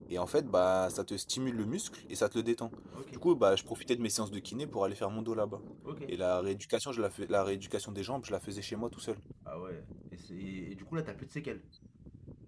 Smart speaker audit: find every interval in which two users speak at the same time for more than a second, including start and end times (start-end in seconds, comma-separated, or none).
none